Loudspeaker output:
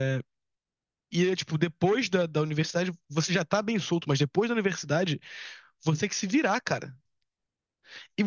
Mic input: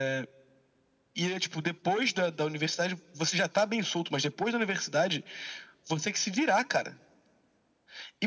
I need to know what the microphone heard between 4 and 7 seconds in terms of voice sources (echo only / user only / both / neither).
echo only